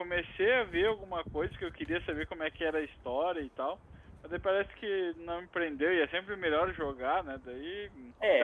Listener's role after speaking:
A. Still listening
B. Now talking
B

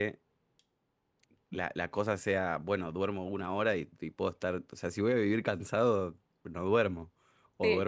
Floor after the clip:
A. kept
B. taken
B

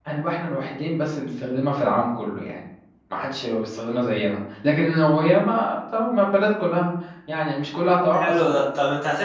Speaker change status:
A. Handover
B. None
A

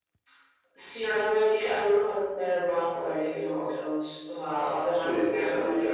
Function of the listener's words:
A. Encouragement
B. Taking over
B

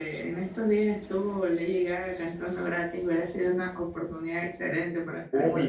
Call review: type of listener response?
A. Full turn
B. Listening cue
A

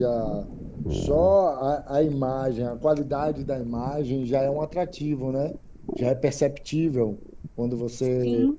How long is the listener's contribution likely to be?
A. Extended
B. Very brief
B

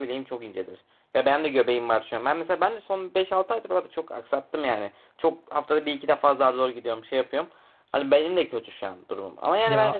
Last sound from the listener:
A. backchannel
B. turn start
A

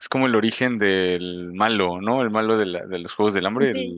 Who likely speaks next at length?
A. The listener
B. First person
B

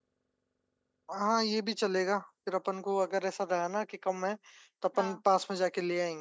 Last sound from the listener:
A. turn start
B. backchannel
B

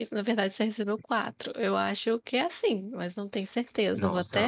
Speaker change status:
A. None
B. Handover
B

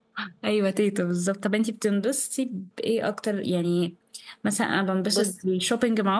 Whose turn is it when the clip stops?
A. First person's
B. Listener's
A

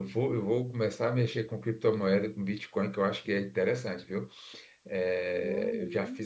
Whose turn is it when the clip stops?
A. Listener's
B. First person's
A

